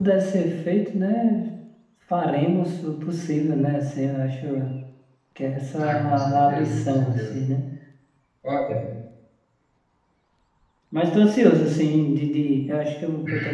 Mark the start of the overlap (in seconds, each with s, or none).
5.8 s